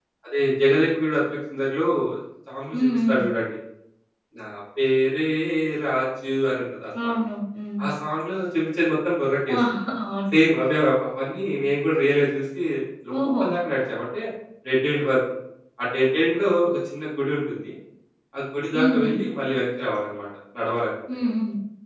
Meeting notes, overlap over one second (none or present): none